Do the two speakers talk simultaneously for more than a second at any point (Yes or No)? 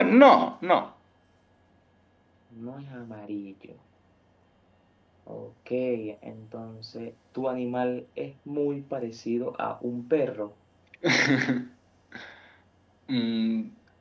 No